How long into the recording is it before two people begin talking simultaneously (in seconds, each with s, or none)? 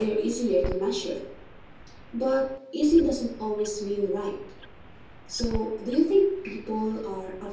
none